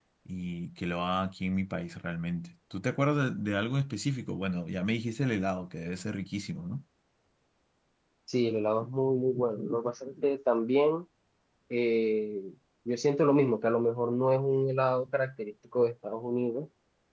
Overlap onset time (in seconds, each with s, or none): none